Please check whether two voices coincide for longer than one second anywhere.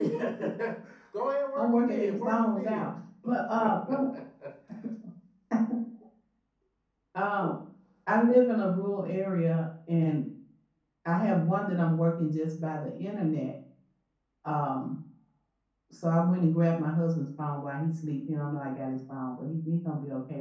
Yes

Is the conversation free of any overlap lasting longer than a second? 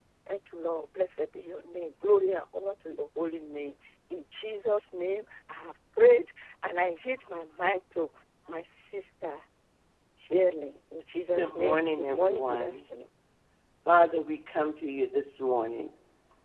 No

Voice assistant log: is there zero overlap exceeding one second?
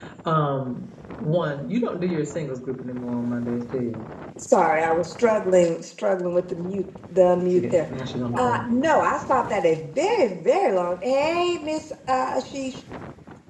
Yes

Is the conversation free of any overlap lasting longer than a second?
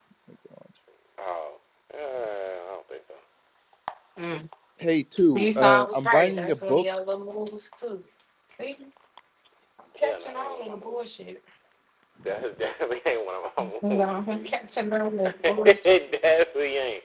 No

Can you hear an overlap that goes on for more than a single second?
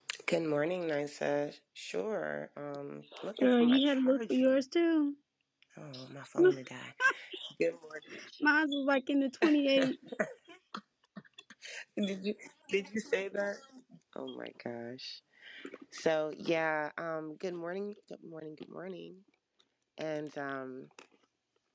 Yes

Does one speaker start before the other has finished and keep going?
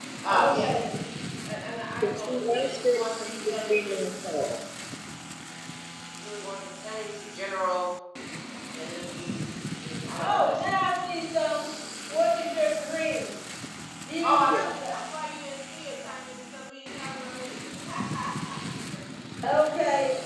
Yes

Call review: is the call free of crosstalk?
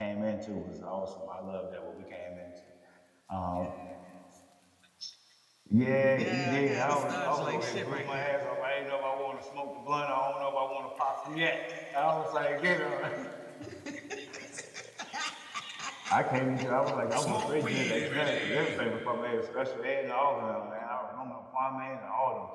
No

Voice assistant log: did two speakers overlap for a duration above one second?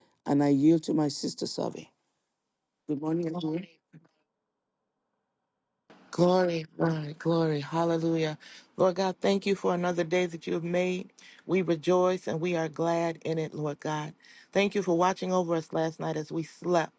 No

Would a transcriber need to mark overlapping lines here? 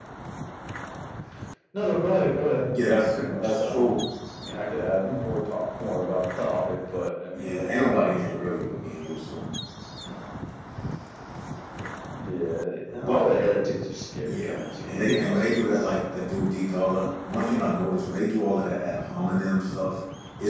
Yes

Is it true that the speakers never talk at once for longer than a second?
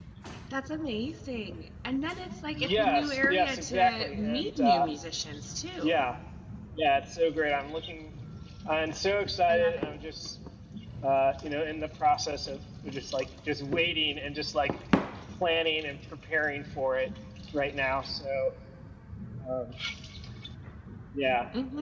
No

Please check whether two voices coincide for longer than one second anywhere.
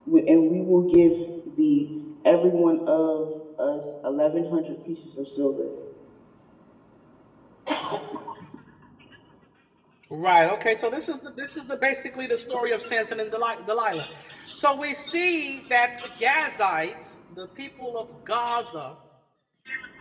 No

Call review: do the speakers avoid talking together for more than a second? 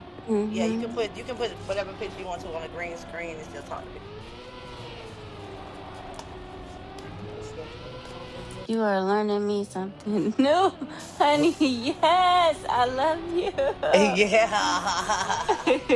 Yes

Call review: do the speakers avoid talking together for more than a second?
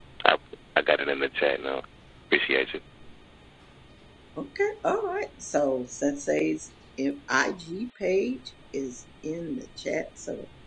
Yes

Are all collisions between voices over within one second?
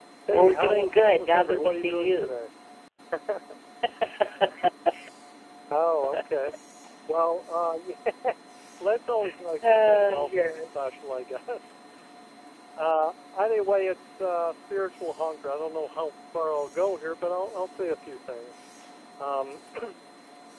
No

